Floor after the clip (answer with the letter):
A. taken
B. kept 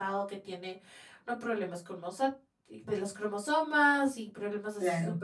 B